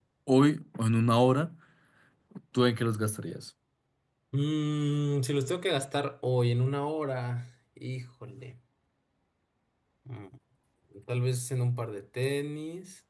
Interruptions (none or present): none